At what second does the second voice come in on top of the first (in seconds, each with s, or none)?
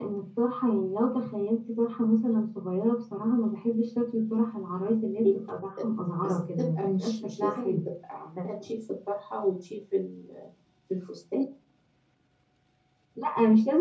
6.2 s